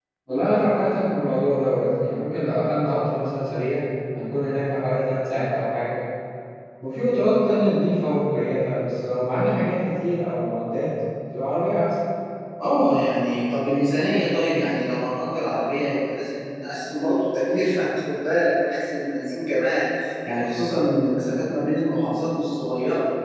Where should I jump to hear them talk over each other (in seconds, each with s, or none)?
none